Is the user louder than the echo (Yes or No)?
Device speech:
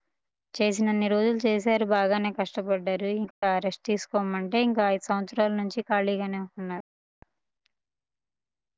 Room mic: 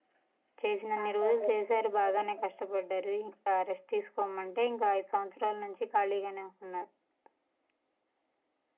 No